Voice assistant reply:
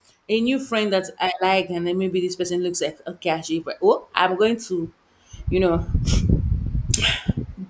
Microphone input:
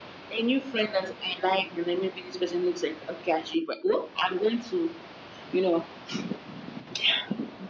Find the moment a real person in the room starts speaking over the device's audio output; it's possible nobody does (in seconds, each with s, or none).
none